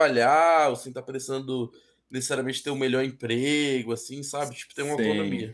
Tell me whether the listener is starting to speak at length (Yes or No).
Yes